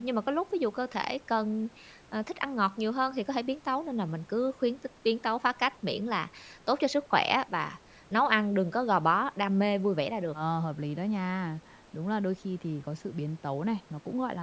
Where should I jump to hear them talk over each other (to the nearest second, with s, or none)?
none